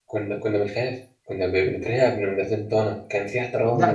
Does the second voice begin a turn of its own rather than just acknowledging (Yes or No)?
Yes